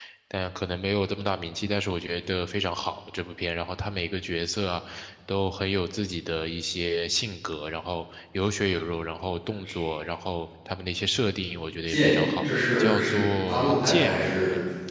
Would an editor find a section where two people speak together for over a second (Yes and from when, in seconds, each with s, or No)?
Yes, from 11.9 s